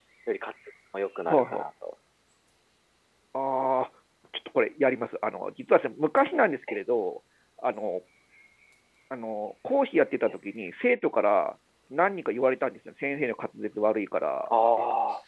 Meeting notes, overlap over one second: none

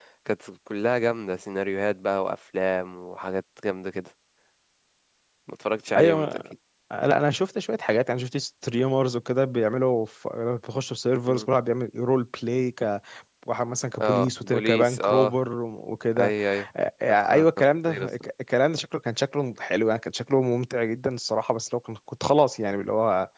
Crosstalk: present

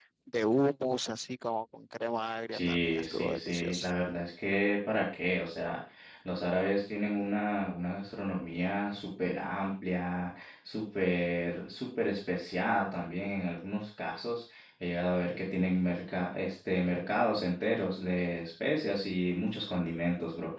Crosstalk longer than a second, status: present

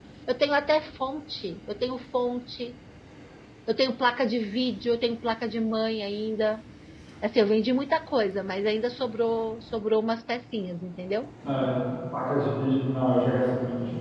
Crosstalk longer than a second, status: none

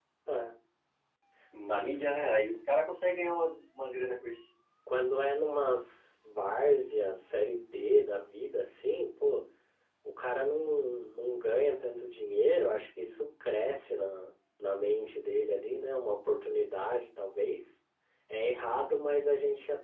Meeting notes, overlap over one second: none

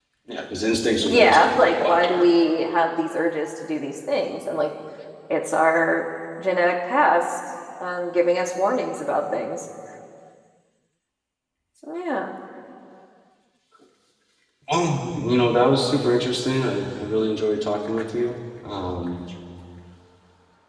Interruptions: present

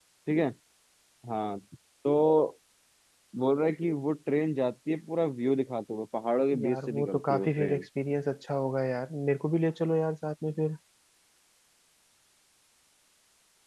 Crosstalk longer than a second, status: present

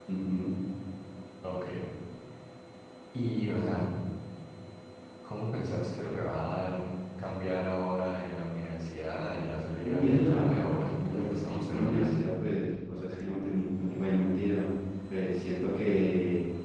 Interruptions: present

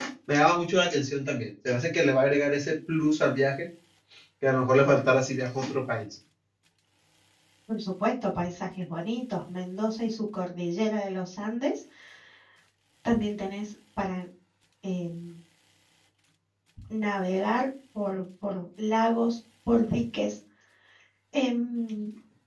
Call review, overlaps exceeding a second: none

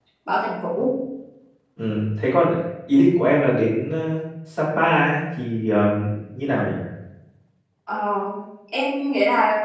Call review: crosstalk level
none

